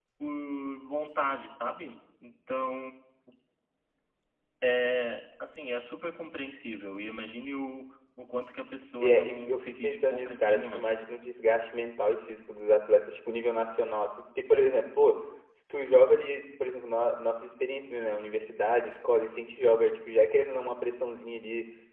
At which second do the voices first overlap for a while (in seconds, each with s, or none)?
9.0 s